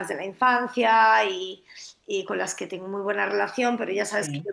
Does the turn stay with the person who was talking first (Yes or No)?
Yes